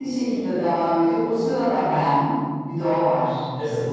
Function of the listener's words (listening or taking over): taking over